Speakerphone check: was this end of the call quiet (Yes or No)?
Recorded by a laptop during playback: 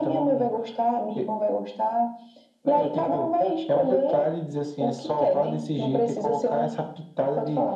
Yes